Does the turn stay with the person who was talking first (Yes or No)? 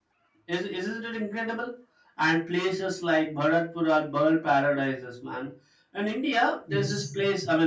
Yes